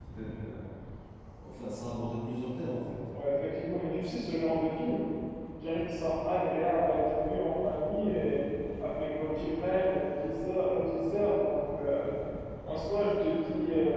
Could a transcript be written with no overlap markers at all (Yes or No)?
Yes